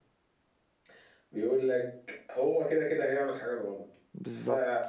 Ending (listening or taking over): listening